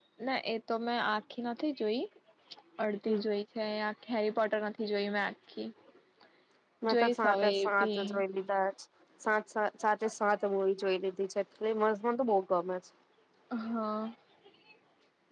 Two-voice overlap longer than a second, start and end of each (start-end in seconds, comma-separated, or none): 6.8-8.2